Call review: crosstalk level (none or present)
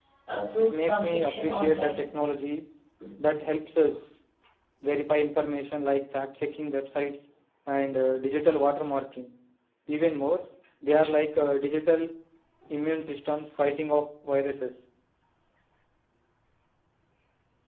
present